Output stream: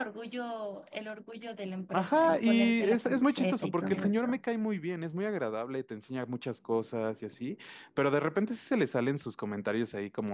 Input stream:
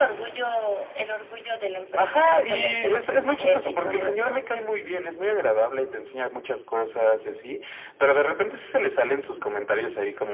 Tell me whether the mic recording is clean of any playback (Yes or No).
No